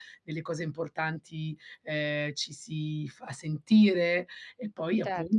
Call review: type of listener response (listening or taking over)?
taking over